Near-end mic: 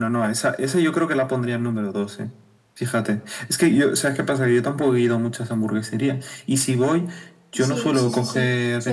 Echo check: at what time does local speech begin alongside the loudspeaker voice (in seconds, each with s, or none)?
7.5 s